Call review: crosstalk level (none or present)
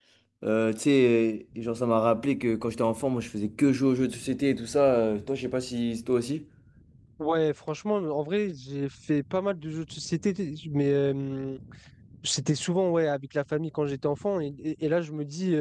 none